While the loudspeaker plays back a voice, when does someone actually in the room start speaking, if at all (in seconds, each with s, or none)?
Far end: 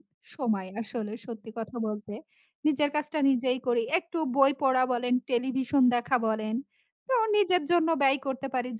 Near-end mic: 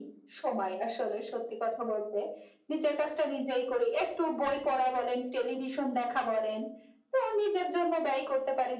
none